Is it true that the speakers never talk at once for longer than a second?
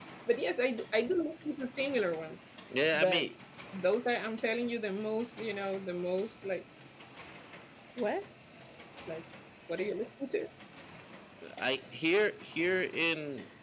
Yes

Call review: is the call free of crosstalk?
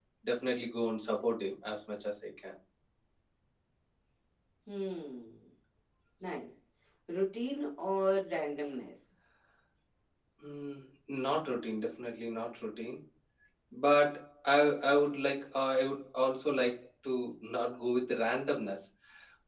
Yes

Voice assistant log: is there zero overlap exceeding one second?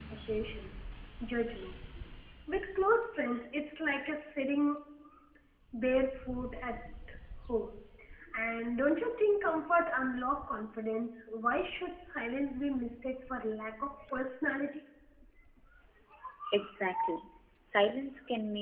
Yes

